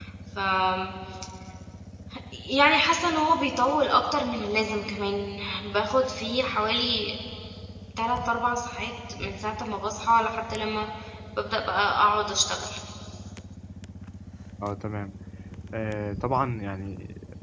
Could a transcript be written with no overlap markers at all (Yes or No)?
Yes